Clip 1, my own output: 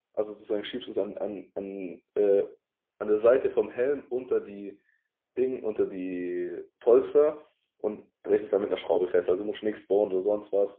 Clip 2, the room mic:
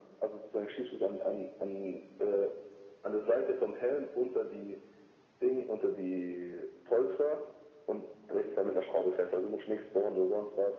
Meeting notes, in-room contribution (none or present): none